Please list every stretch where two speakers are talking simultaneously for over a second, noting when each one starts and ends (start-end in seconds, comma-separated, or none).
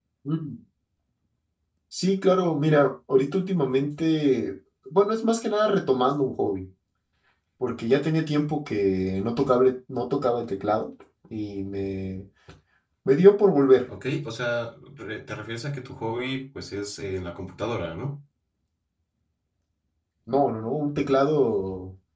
none